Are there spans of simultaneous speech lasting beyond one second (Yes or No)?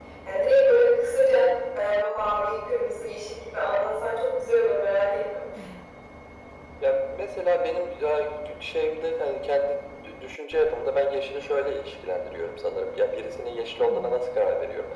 No